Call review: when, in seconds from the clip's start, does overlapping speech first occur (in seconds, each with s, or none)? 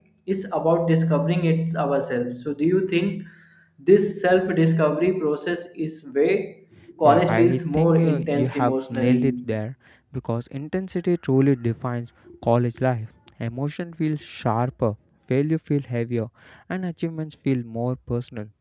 7.0 s